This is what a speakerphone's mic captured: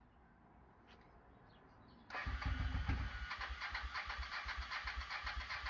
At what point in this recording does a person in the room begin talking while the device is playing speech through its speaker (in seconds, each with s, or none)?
none